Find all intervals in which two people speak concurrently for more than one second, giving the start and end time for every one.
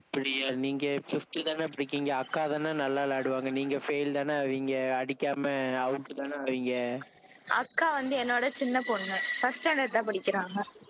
none

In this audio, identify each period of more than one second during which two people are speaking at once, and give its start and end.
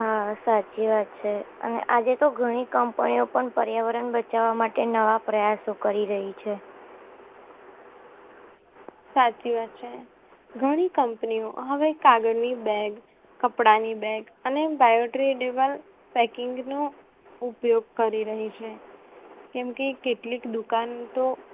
none

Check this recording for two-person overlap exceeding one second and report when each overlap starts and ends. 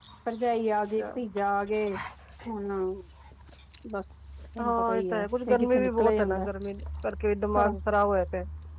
4.6-6.5

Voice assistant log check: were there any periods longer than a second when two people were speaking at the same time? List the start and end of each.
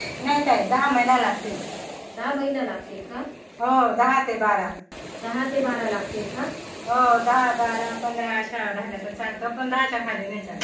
none

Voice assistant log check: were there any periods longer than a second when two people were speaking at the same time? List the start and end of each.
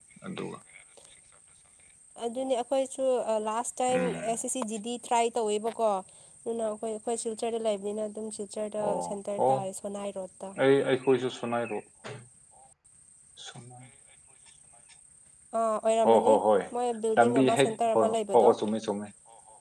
17.2-18.4

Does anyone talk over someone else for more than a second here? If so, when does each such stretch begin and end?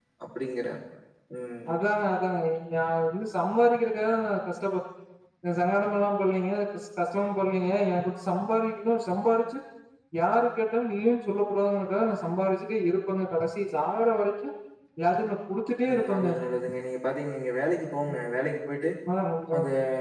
none

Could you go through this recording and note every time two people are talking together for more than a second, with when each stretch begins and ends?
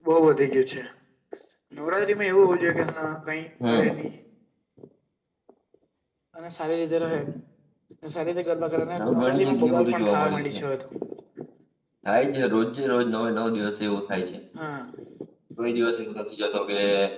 9.0-10.6

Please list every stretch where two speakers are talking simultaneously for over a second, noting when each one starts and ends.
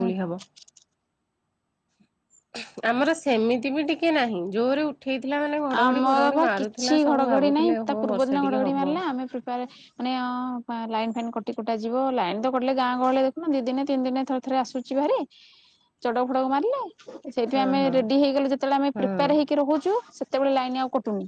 5.8-8.9

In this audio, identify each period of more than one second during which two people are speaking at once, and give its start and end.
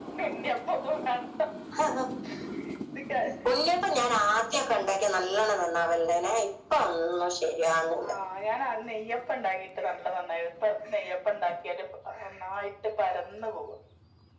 none

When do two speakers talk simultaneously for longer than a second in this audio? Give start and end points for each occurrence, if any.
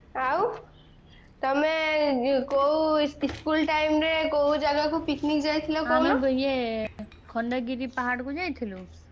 none

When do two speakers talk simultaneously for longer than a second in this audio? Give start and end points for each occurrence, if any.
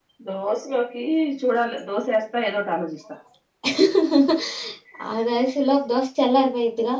none

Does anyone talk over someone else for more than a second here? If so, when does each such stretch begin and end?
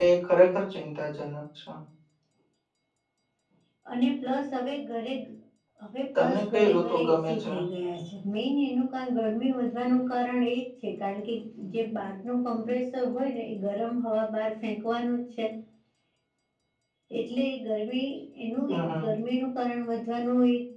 6.2-7.5

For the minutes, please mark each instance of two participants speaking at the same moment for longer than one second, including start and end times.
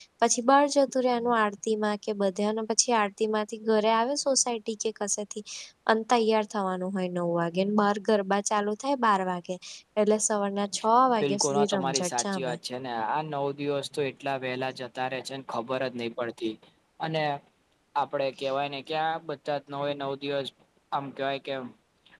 11.2-12.5

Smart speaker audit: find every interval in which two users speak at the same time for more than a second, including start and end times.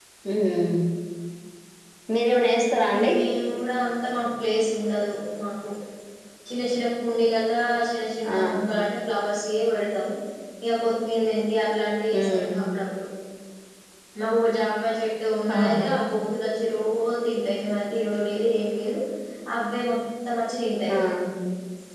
none

